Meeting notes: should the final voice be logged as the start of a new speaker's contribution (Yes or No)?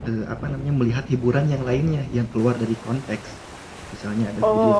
Yes